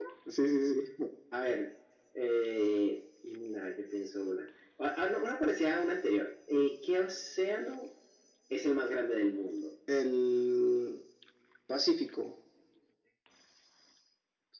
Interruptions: none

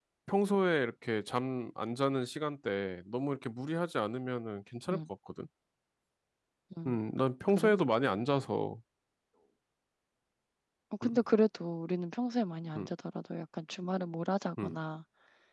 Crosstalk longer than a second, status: none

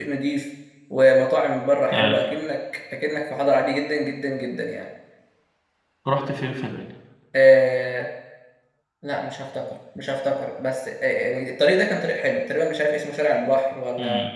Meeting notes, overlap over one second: none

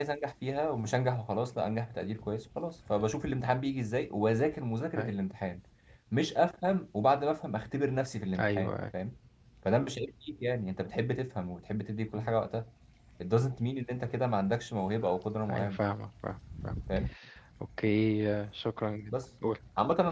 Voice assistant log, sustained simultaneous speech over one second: none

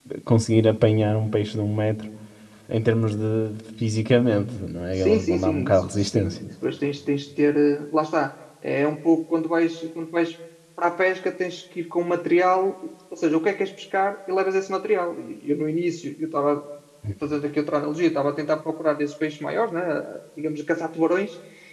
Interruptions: present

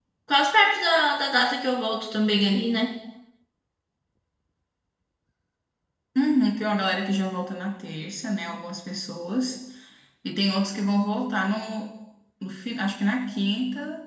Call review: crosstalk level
none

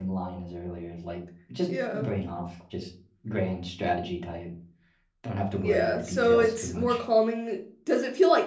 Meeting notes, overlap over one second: present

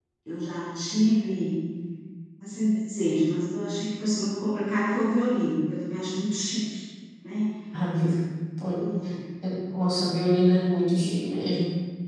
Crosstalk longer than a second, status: none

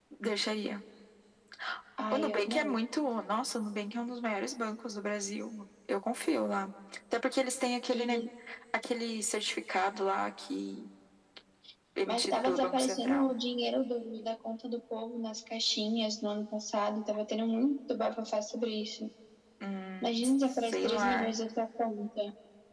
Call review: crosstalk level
present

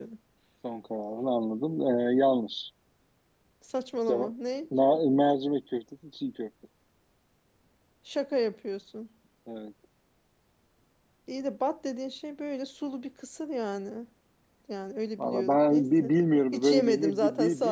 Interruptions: present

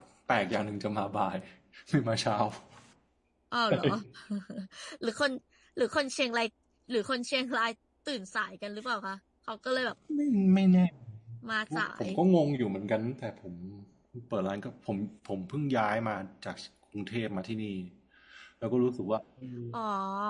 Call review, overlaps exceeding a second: none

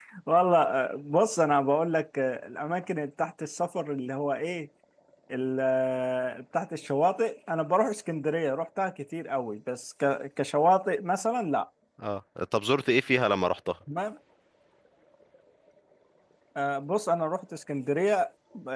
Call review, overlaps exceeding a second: none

